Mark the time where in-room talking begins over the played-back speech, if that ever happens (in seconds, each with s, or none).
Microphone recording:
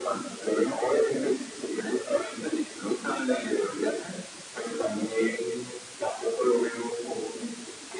none